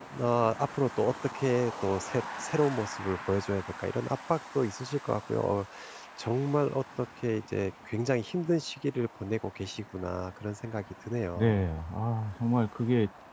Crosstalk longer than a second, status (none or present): none